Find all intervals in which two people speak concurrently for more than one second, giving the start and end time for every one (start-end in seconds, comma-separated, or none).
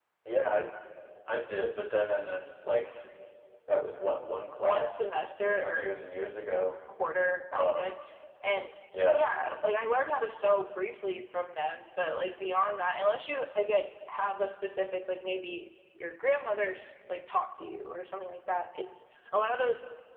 4.6-5.9